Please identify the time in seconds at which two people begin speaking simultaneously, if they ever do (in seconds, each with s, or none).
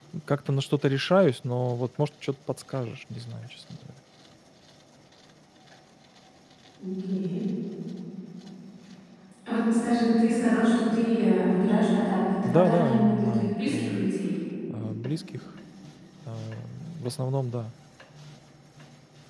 12.4 s